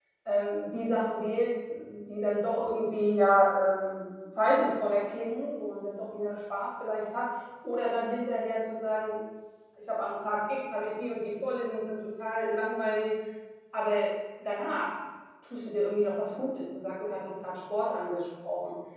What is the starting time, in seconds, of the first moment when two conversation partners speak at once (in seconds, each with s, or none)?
none